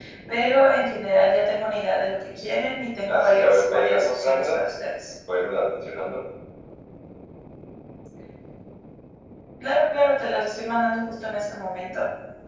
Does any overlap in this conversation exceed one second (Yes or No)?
Yes